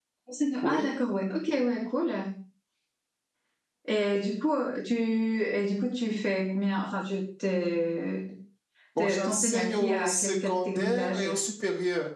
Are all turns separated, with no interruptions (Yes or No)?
No